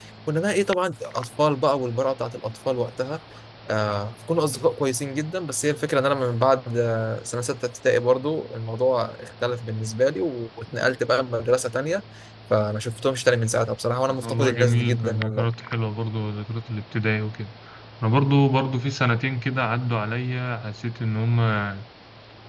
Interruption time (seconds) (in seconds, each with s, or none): 14.2 s